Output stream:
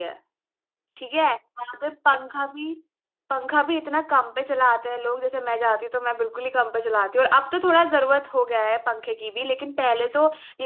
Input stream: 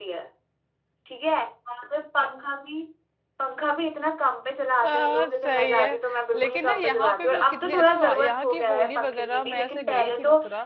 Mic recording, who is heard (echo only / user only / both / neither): both